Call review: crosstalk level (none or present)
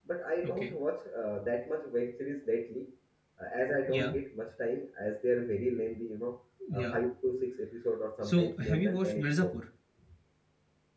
present